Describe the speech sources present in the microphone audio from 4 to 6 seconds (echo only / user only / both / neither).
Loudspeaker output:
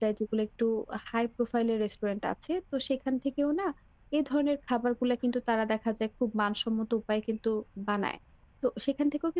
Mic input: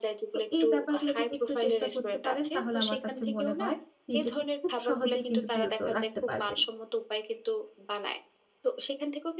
both